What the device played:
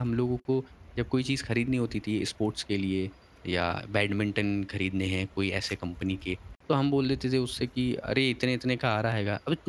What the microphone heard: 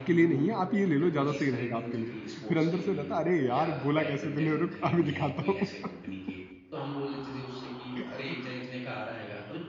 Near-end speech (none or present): present